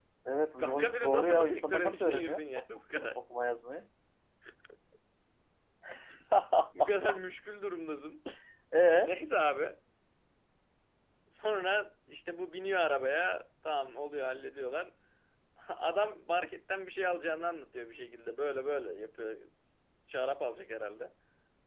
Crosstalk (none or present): present